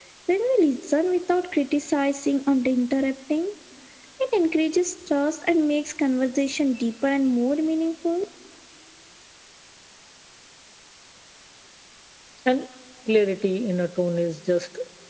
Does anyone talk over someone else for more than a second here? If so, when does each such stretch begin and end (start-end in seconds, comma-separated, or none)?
none